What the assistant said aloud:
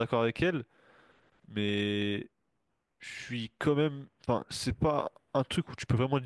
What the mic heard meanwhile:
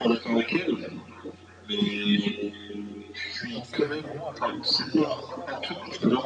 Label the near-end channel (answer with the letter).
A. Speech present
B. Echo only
A